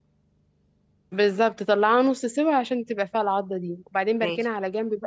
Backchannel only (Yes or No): Yes